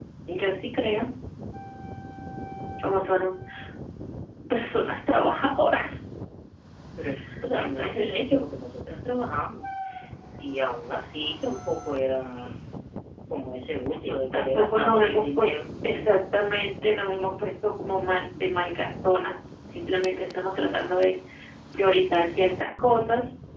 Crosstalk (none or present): present